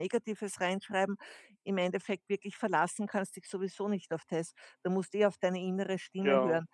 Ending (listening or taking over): listening